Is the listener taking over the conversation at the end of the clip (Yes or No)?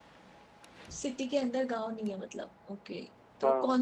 No